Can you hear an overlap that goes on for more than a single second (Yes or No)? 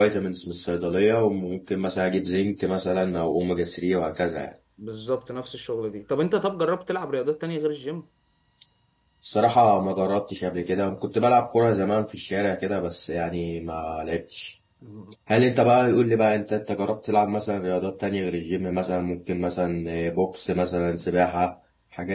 No